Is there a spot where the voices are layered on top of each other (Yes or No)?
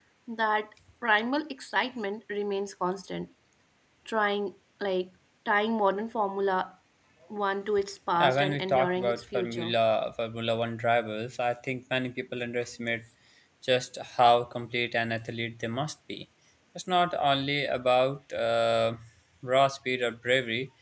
Yes